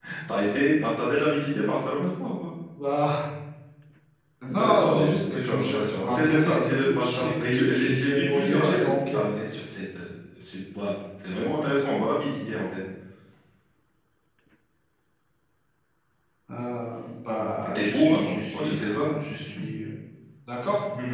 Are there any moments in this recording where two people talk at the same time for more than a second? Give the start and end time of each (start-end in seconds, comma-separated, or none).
4.5-9.0, 17.6-19.2